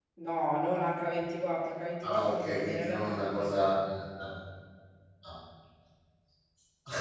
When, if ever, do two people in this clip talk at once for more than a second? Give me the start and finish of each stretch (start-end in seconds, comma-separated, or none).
2.0-3.5